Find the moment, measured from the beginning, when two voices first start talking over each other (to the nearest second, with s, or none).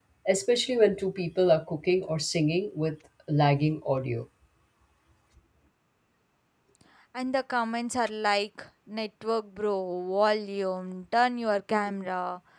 none